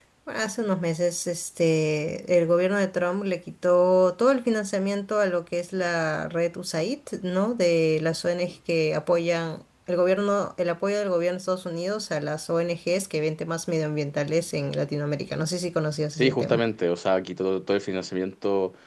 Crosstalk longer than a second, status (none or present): none